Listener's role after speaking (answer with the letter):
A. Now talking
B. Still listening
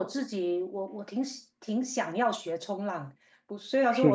B